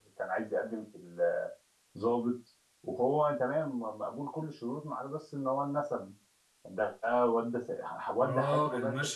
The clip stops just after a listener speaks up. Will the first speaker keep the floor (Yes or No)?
No